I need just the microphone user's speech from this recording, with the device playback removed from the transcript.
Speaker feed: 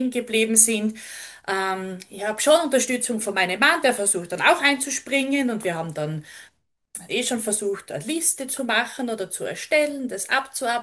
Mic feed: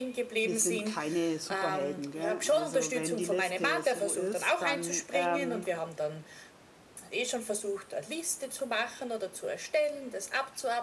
wir sind keine Superhelden, gell. Also wenn die Liste so ist, dann ähm,

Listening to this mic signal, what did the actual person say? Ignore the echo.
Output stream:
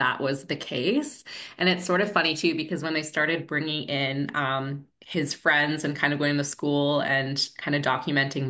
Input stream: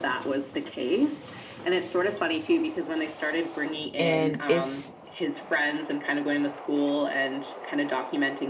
And it's

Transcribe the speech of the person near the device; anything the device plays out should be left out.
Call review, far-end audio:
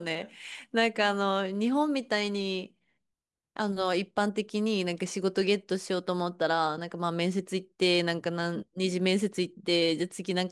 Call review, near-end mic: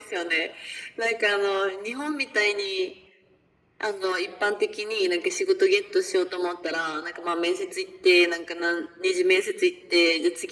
none

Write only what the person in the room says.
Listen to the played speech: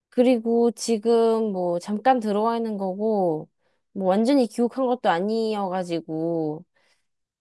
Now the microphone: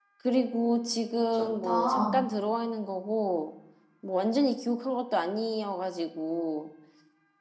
좋다.

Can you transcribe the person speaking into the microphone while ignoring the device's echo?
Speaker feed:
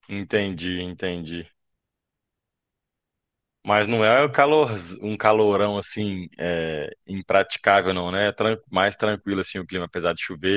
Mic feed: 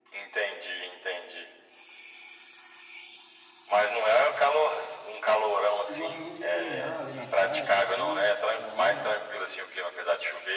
Eu gosto muito de caminhar ali na praia, essas coisas, na orla.

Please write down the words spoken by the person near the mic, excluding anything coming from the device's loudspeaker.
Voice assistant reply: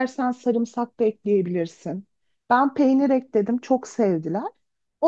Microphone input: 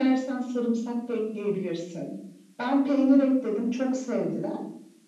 none

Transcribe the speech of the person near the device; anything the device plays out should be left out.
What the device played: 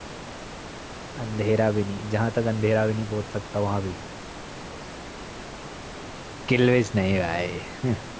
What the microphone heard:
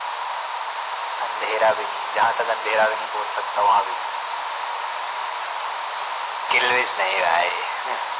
none

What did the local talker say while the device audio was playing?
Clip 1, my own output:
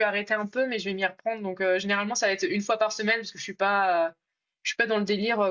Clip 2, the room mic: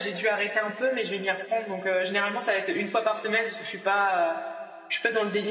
none

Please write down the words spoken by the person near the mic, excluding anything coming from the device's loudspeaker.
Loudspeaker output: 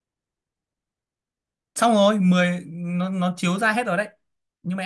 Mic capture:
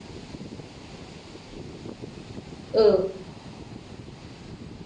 ừ

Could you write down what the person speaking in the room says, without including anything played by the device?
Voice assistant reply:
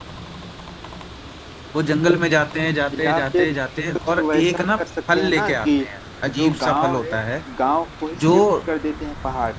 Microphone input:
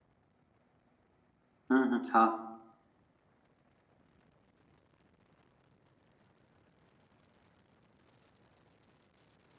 हम्म हम्म हाँ

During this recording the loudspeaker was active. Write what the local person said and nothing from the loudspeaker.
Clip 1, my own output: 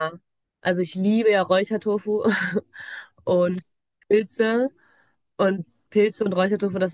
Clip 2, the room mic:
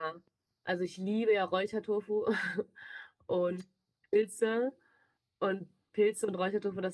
none

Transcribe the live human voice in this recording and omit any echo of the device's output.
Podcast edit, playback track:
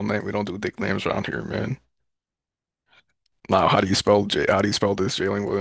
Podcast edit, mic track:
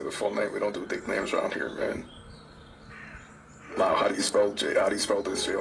none

